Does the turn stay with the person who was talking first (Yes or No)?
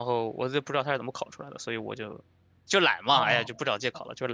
No